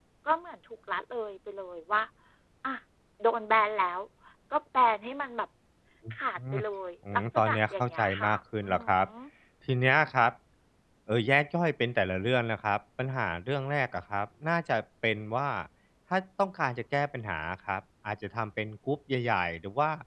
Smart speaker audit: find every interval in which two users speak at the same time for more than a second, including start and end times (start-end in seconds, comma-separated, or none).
7.1-9.0